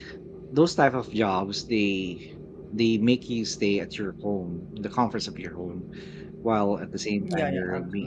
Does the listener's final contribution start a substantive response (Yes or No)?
Yes